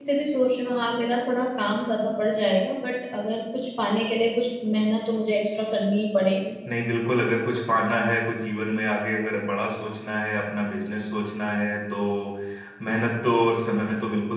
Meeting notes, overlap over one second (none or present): none